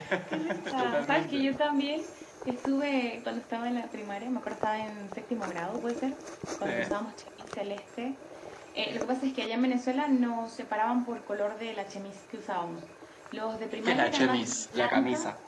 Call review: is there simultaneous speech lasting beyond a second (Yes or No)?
Yes